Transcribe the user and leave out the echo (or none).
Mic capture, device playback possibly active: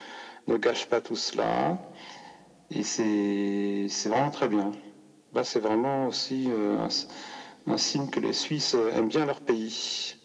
none